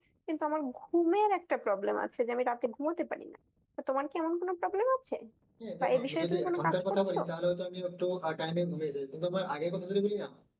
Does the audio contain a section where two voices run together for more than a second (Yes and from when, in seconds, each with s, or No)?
Yes, from 5.8 s